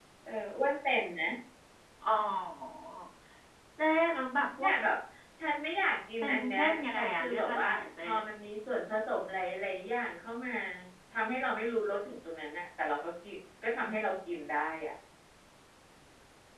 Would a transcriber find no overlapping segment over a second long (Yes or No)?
No